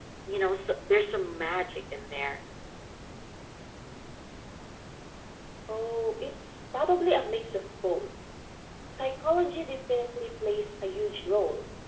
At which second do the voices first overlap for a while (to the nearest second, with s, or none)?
none